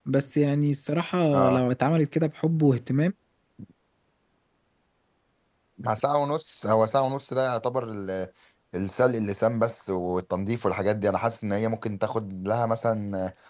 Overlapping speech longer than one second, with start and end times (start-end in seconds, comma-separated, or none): none